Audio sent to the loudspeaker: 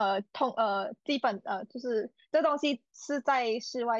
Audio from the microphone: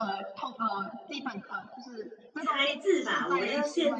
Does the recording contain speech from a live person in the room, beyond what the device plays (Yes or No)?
Yes